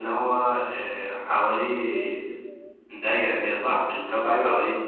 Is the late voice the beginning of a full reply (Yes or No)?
No